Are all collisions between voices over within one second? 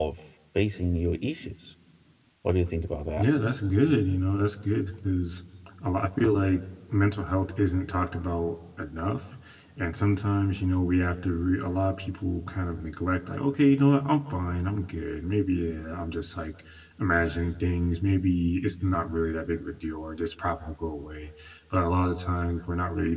Yes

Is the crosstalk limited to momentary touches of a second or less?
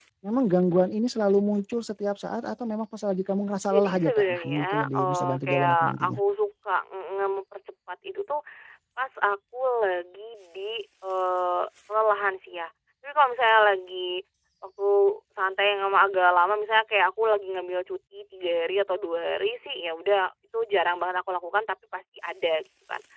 No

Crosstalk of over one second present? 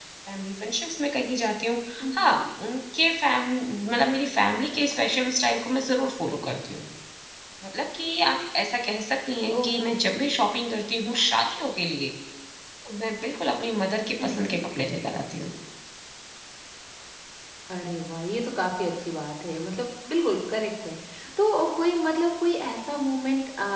No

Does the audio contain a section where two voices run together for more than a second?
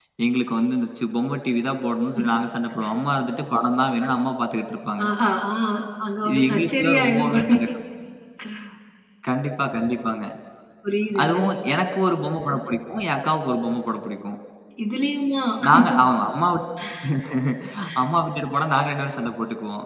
Yes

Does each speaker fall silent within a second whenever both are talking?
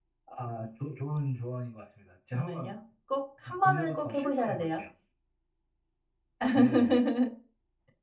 No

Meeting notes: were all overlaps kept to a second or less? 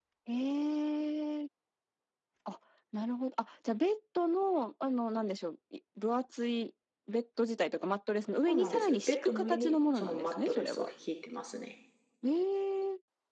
No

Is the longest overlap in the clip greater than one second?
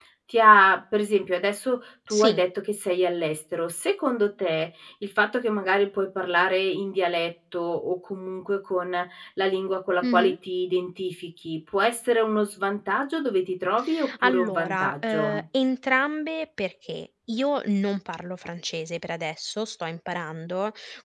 Yes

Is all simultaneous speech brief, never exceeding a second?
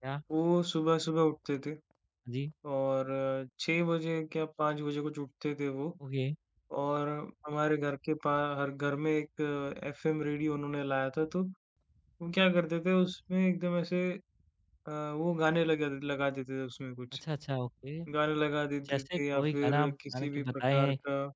No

